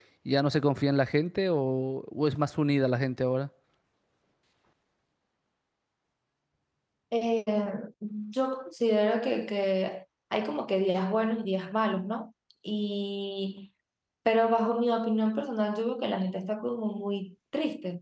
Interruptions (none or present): none